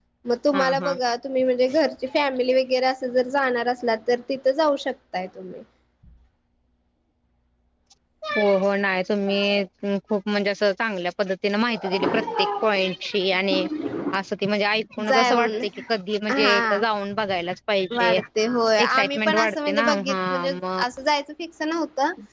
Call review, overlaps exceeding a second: present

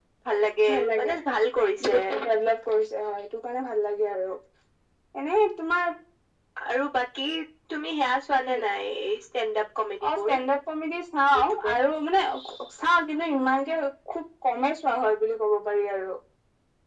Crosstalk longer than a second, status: none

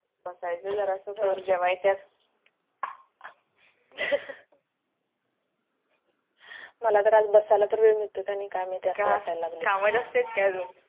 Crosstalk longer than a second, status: none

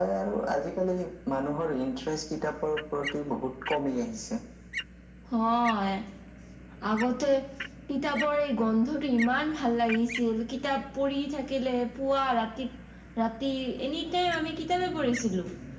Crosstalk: none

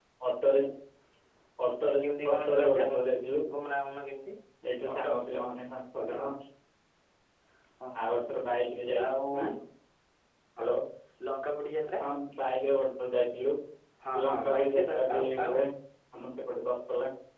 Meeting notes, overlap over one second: present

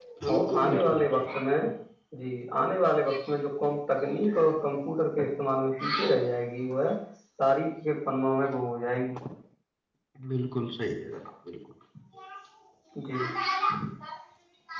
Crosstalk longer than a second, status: present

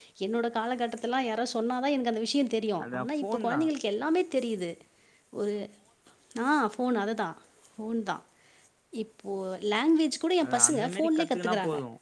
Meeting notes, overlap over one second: present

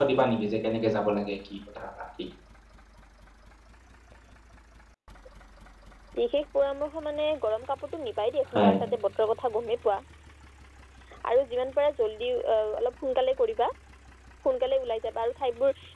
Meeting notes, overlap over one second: none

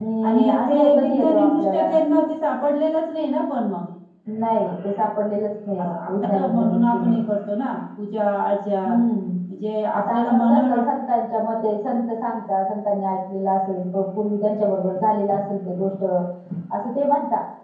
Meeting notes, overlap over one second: present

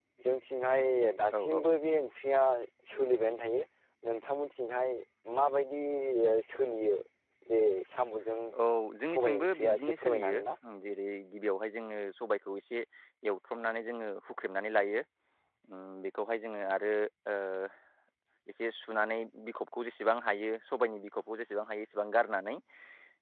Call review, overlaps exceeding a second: present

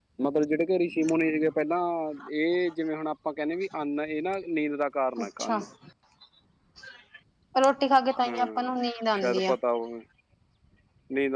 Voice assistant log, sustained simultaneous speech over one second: none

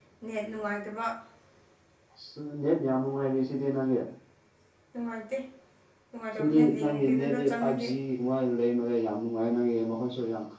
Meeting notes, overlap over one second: present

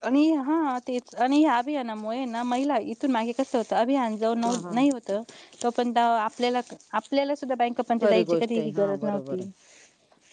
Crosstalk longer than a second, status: present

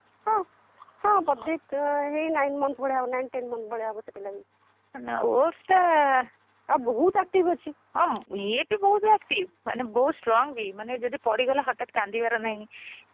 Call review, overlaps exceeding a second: none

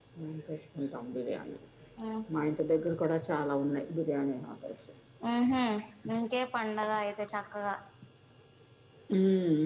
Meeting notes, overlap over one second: none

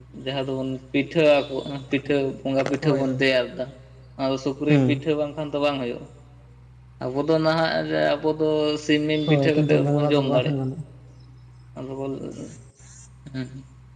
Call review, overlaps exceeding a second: present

